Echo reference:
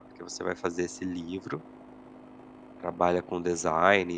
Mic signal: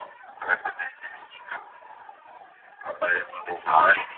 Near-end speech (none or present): none